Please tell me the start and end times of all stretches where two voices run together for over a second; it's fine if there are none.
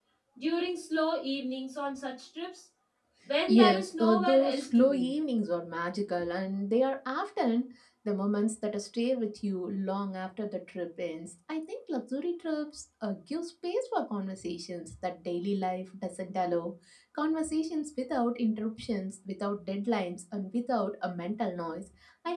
3.5-5.1

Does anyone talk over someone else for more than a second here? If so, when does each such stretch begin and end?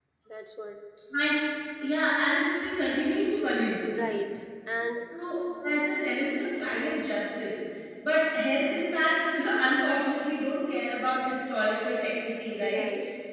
none

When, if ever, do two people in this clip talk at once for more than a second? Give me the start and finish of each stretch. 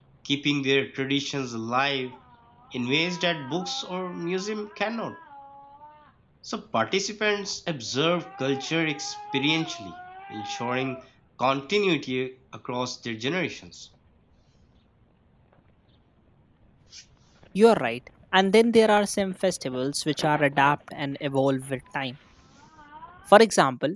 none

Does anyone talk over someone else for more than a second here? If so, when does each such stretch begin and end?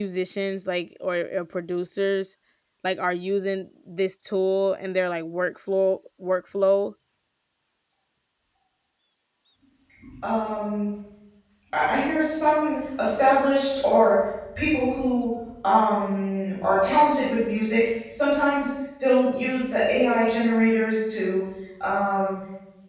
none

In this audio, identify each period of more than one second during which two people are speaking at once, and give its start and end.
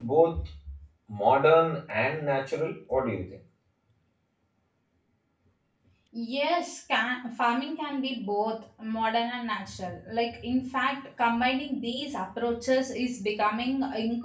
none

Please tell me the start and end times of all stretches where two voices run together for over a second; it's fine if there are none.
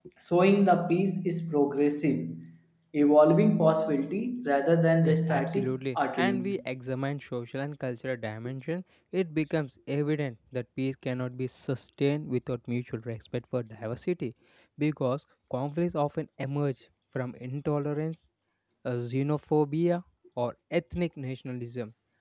5.0-6.5

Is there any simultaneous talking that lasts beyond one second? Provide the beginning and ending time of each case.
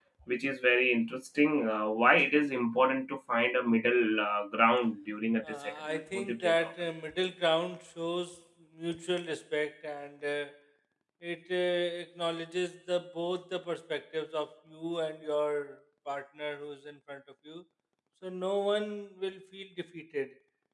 5.4-6.7

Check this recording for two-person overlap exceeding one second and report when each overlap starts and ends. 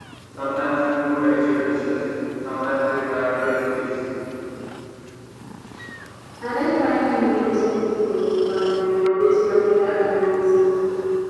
none

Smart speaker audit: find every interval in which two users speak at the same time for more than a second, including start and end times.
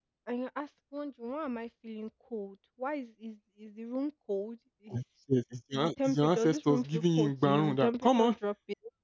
5.7-8.3

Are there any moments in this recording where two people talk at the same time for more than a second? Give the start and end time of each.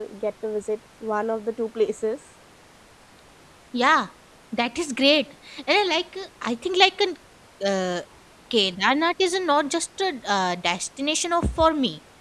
none

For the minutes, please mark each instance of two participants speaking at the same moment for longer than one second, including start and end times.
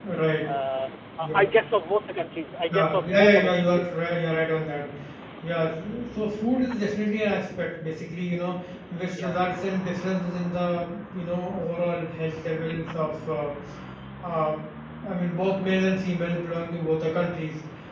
2.7-3.9

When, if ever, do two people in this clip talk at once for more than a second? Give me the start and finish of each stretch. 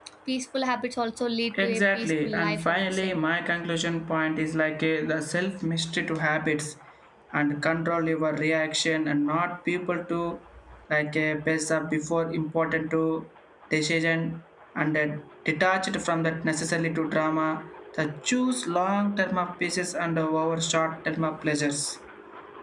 1.6-3.2

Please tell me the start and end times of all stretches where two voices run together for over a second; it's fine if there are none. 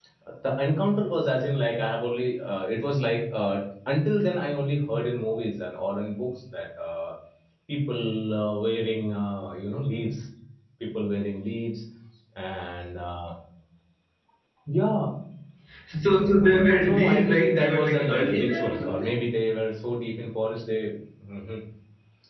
16.9-19.3

